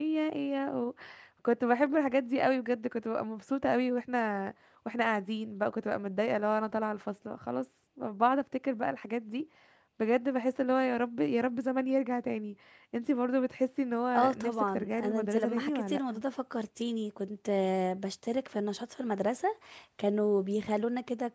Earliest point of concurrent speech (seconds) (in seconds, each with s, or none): 14.1 s